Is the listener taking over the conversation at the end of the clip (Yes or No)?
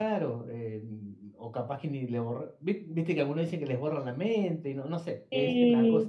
No